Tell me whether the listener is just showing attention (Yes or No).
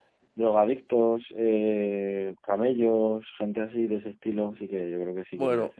No